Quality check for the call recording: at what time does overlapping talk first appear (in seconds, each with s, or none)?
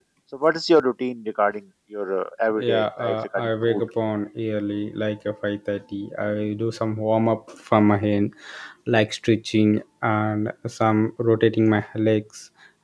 2.6 s